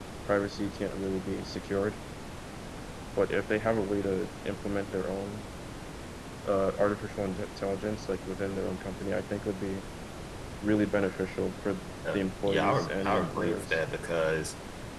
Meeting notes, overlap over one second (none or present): present